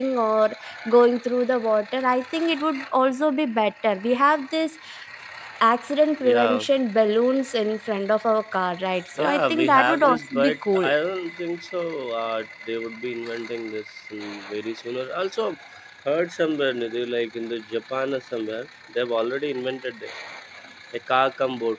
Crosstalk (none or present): present